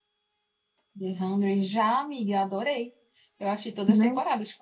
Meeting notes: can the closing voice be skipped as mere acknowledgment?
Yes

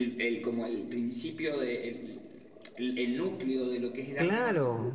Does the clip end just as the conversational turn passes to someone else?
Yes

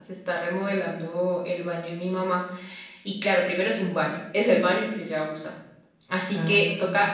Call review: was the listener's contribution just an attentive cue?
Yes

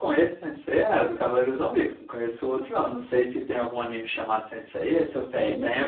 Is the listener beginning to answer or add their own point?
Yes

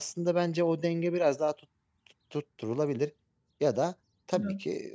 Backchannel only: Yes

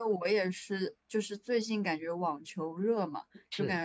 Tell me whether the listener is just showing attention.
Yes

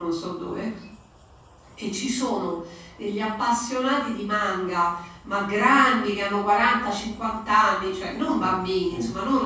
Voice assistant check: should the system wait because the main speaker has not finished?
Yes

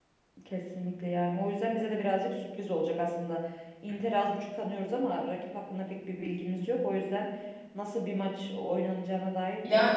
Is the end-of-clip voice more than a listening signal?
Yes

